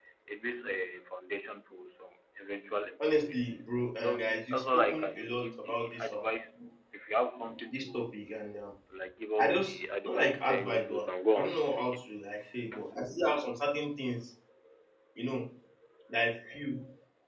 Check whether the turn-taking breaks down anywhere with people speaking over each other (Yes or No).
Yes